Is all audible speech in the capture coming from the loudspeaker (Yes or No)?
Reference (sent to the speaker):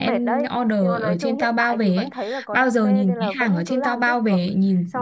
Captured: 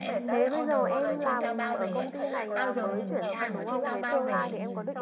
No